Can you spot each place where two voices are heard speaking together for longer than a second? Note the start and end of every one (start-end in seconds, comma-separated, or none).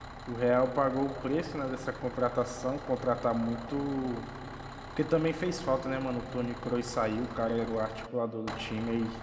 none